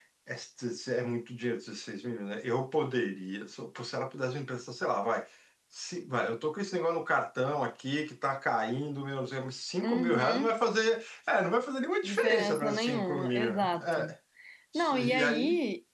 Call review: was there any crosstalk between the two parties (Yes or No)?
Yes